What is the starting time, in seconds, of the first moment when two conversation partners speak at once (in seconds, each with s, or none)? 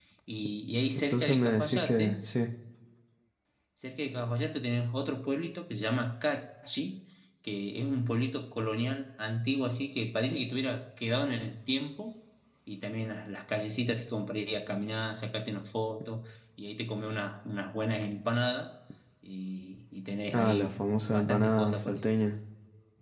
0.9 s